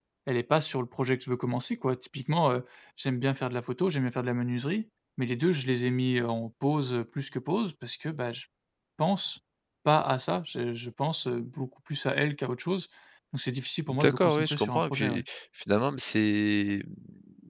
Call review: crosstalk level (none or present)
present